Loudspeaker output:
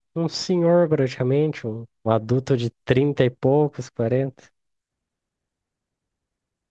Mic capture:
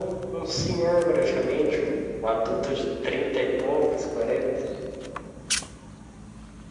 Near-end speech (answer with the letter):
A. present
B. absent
B